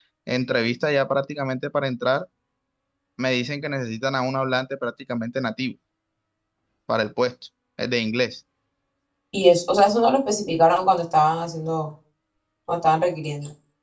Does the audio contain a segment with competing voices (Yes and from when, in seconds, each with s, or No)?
No